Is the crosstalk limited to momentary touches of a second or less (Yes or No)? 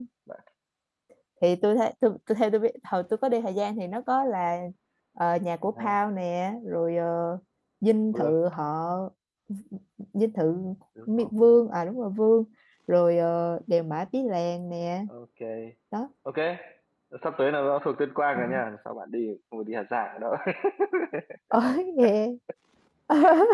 Yes